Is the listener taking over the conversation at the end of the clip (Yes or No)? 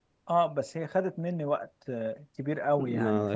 Yes